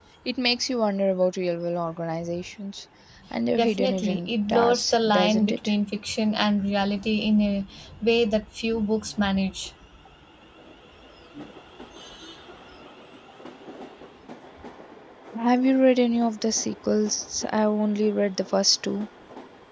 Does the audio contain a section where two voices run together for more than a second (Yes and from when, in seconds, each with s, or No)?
Yes, from 3.6 s